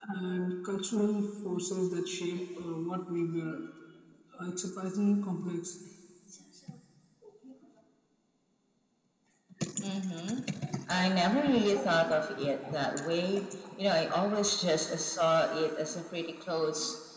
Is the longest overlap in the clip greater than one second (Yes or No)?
No